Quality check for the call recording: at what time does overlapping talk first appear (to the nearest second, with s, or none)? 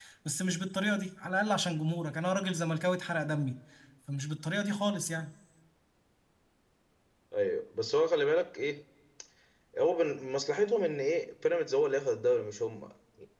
none